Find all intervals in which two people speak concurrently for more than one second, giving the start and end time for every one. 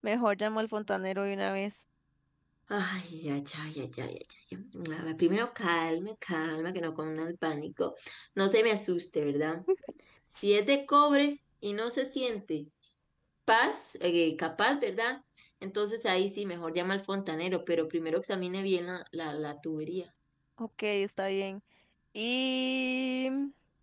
none

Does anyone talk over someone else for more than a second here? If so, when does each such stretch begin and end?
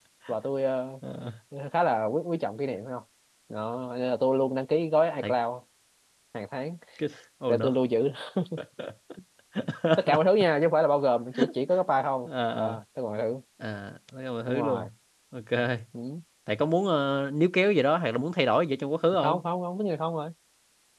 none

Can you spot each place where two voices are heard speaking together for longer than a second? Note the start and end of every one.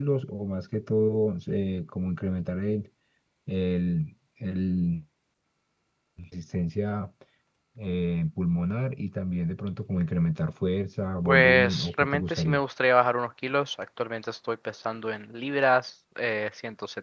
11.2-12.6

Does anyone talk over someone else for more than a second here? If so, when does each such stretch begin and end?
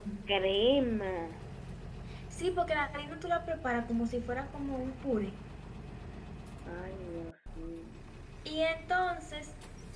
none

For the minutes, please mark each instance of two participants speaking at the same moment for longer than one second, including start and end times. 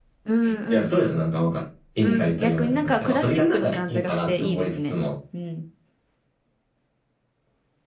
2.0-5.0

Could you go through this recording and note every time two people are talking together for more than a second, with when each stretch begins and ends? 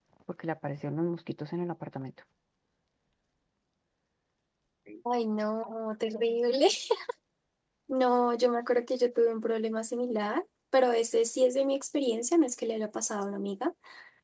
none

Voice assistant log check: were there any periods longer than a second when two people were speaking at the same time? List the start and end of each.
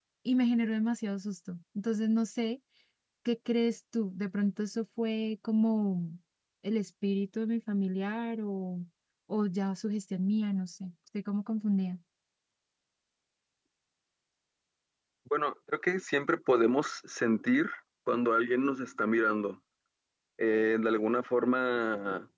none

